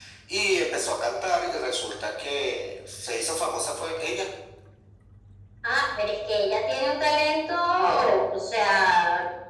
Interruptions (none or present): none